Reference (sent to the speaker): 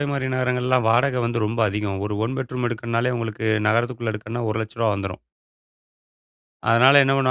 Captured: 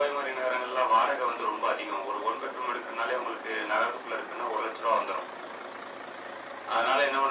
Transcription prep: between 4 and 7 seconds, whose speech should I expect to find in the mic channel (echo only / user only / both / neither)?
echo only